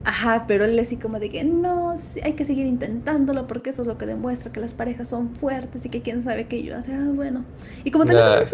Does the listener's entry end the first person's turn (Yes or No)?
No